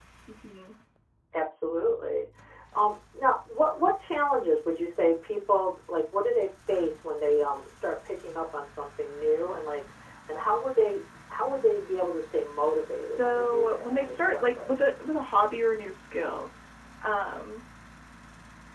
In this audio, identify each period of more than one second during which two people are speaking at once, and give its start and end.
13.0-14.7

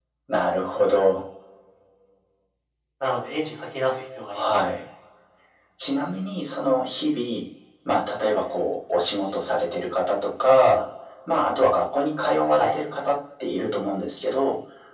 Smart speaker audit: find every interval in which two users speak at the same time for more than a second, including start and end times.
none

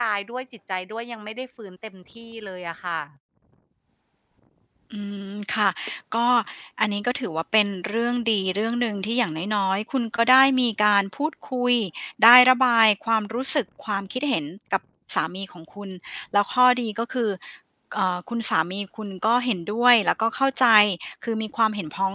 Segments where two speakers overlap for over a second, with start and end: none

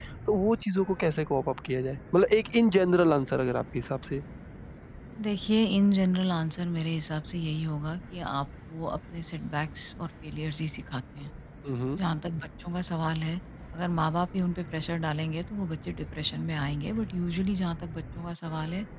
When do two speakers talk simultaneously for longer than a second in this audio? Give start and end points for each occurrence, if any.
none

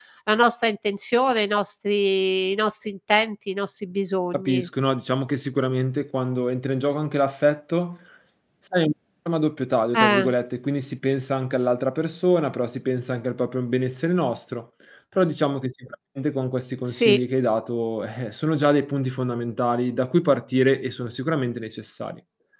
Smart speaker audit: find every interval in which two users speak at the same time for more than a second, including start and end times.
none

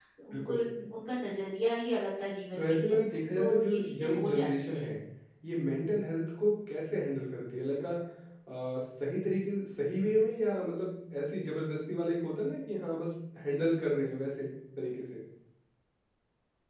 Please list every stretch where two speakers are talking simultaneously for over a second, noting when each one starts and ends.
3.3-4.9

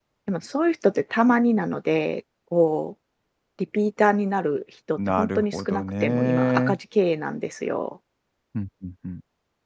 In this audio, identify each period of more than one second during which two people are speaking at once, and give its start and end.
5.0-6.8

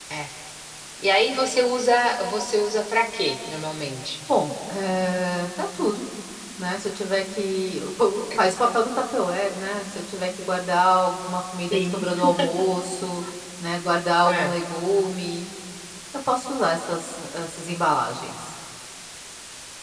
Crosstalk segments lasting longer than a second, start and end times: none

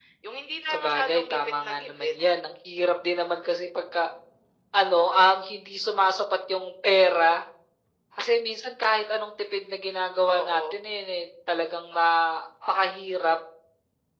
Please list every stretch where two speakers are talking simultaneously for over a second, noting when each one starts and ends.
0.7-2.1

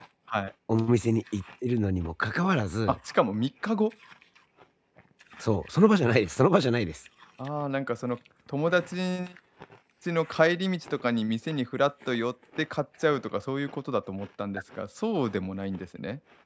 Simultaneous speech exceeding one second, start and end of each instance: none

